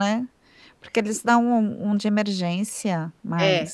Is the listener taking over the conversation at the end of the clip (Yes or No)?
Yes